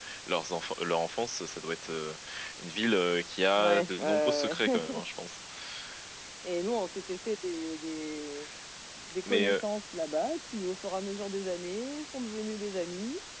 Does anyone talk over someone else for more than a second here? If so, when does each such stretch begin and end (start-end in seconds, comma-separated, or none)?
3.6-4.8